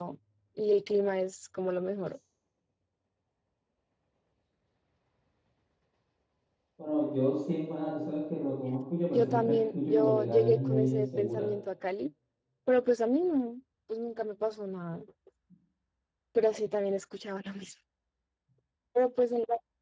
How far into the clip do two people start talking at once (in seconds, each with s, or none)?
9.1 s